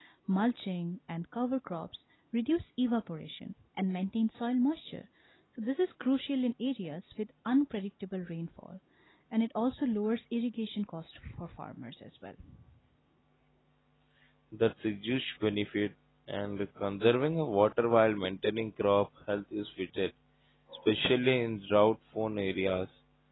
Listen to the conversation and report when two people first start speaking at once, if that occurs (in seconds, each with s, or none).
none